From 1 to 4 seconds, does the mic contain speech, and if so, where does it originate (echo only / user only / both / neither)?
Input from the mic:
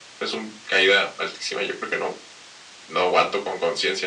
echo only